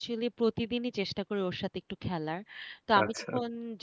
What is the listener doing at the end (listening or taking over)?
listening